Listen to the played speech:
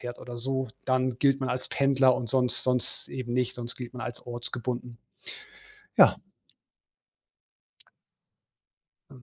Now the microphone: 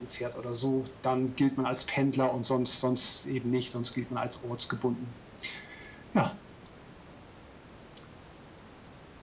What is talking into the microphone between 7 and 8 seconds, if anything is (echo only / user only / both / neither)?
neither